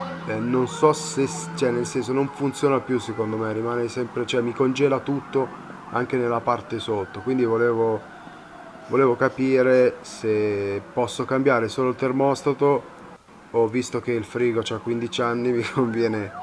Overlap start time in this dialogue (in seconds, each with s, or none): none